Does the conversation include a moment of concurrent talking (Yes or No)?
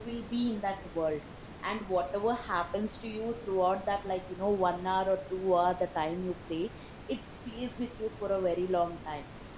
No